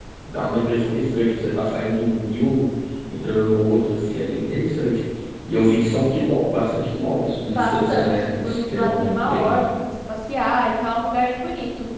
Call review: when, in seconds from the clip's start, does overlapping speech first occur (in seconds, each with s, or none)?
7.5 s